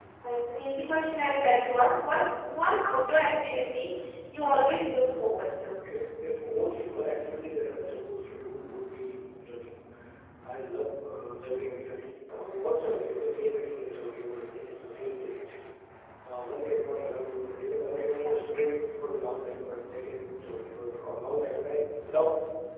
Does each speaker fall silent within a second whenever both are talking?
Yes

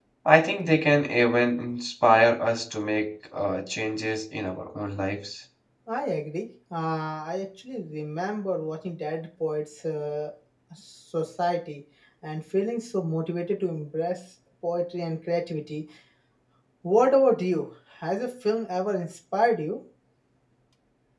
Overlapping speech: No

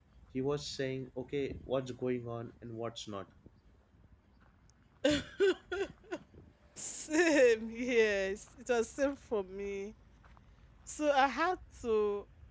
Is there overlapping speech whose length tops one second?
No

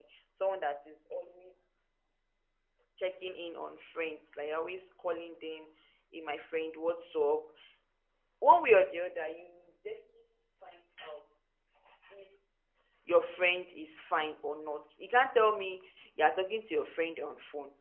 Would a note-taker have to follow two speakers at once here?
No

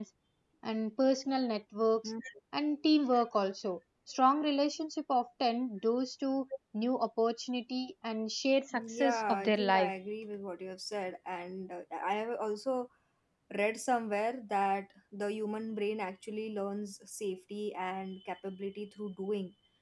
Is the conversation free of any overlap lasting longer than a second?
No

